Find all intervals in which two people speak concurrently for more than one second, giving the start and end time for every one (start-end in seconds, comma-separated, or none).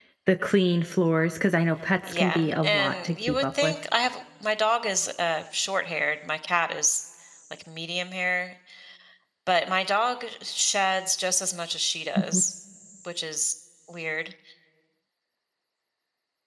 2.1-3.7